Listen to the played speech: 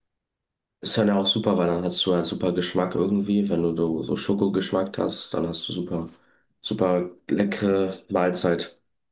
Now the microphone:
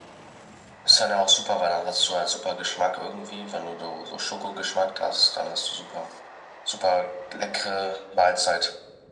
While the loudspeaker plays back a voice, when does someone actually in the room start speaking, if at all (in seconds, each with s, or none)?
none